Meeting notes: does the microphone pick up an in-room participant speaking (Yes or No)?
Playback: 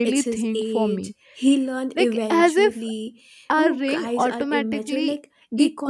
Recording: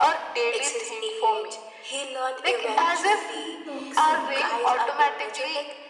Yes